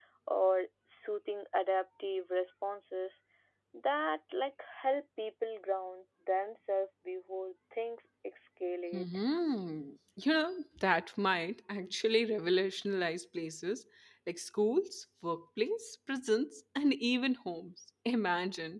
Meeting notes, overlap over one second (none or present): none